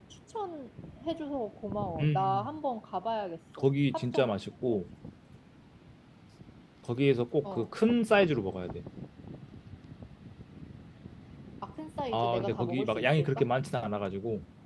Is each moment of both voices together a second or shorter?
No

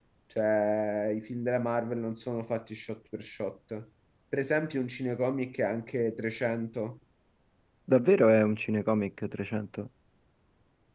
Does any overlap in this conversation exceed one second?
No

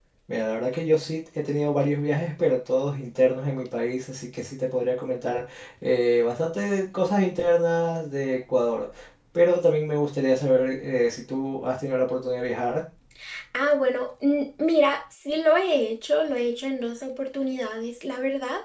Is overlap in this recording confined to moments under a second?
Yes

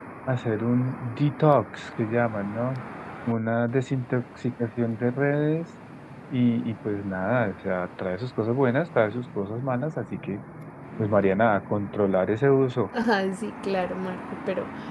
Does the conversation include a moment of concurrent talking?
No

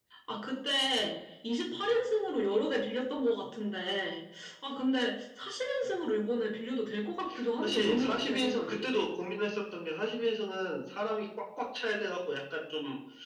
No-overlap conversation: No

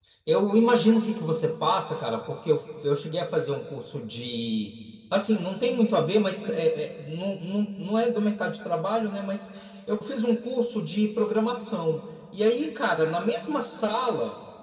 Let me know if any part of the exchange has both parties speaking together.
No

